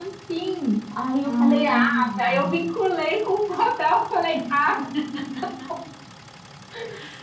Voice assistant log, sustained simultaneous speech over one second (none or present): present